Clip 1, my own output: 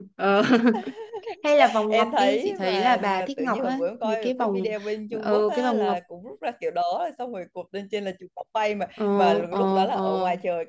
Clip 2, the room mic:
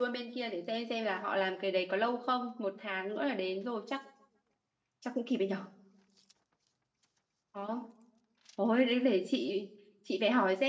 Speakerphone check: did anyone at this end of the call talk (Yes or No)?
Yes